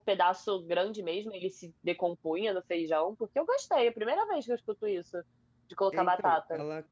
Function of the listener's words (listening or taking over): taking over